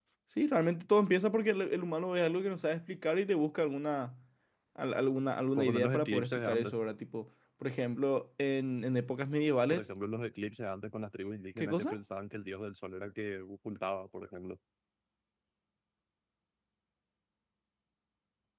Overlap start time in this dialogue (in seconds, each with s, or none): 5.6 s